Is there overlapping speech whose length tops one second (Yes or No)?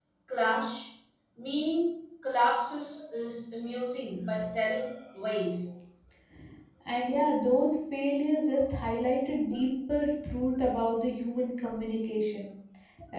No